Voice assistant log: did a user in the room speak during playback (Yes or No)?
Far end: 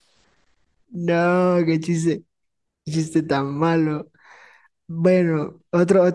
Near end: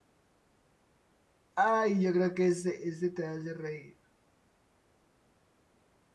Yes